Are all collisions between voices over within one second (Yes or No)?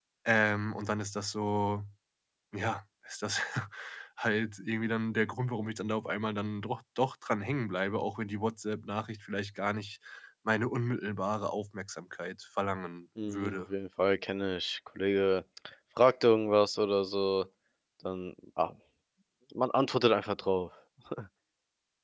Yes